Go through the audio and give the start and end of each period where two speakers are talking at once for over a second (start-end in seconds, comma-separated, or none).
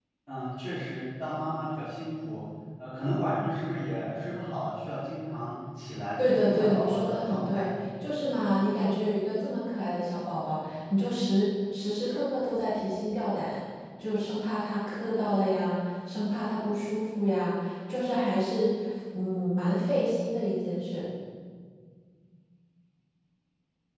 6.2-7.7